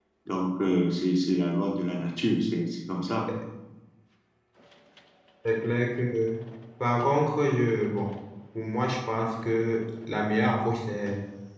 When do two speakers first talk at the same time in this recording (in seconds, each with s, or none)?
none